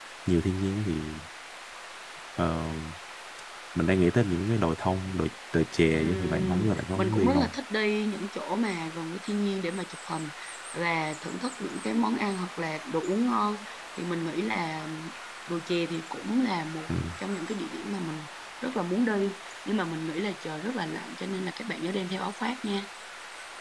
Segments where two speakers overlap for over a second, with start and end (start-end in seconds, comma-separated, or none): 6.0-7.5